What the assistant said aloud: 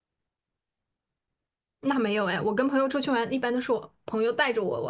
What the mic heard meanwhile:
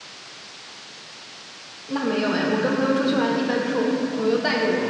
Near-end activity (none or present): none